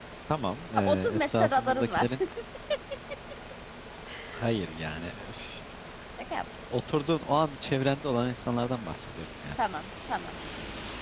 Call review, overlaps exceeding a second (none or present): present